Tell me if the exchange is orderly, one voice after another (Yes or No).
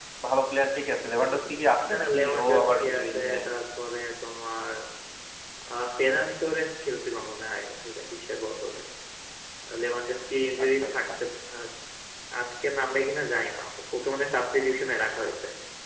No